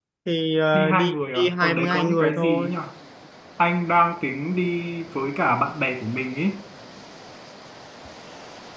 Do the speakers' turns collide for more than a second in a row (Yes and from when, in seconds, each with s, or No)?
Yes, from 0.7 s